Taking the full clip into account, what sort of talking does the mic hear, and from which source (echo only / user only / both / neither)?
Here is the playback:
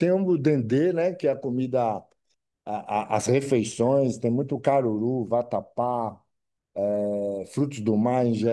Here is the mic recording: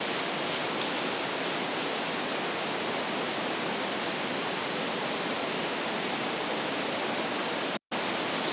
neither